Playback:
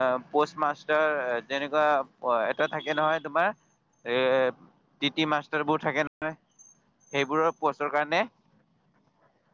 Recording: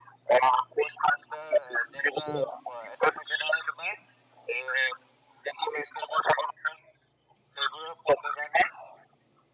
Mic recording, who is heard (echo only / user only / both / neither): echo only